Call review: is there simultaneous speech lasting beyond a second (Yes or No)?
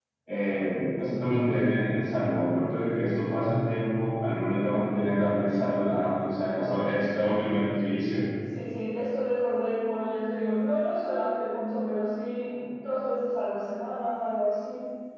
No